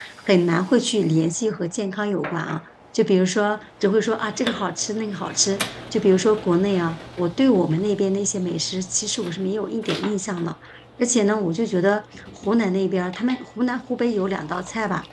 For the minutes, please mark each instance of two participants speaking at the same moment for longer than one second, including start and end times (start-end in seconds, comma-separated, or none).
none